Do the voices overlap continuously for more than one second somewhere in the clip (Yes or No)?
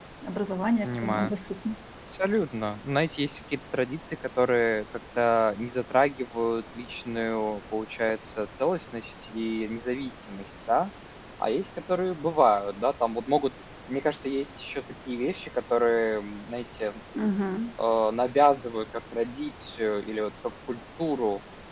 No